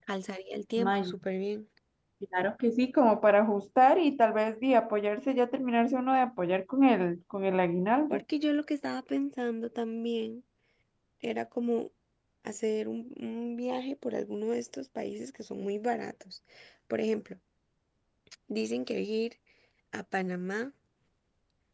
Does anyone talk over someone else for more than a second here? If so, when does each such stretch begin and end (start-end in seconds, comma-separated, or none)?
none